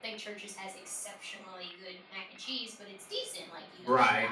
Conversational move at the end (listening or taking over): taking over